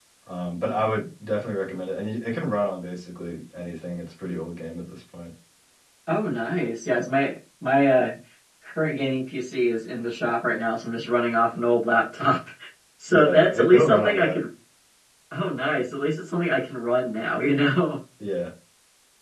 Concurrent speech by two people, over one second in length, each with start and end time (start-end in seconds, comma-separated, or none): 13.1-14.4